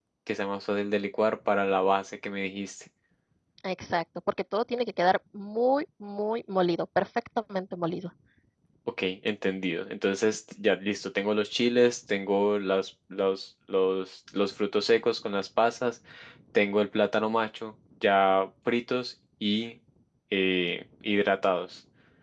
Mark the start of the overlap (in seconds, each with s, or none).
none